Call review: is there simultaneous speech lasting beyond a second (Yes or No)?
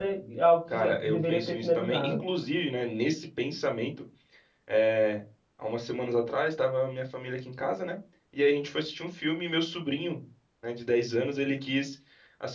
Yes